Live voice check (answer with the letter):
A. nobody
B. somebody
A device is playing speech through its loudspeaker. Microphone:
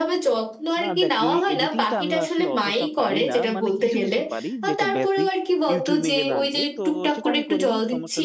B